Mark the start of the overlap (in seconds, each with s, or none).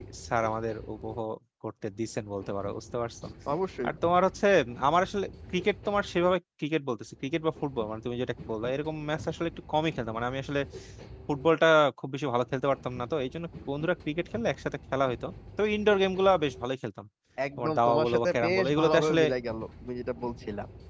17.6 s